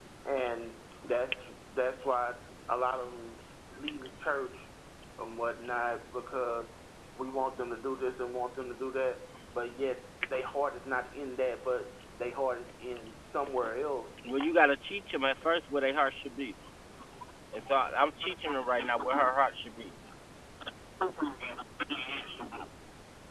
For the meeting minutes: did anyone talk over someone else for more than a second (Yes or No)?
No